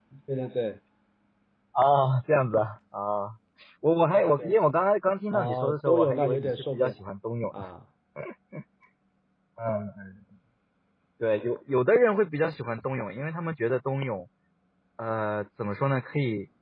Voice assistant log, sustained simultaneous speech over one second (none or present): present